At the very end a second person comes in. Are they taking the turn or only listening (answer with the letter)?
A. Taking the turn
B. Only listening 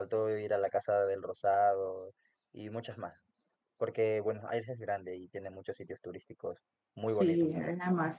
A